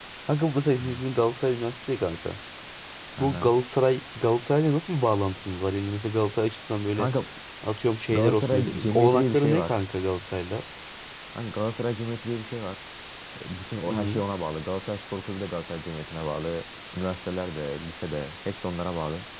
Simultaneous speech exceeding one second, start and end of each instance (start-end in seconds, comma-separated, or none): 8.1-9.7